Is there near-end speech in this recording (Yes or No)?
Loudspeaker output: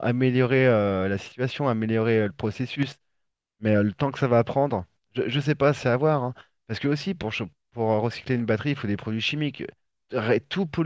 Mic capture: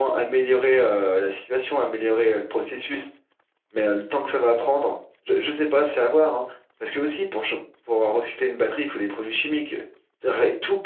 No